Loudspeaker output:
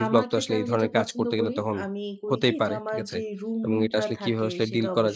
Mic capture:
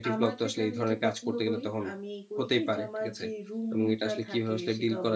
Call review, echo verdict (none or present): present